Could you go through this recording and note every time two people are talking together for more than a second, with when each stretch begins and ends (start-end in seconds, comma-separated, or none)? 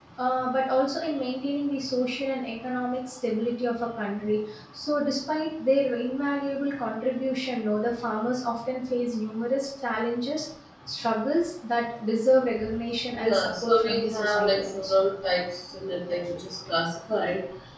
13.2-15.0